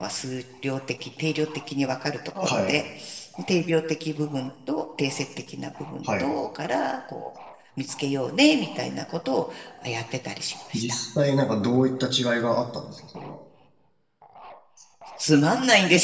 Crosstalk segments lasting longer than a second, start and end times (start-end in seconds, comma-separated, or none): none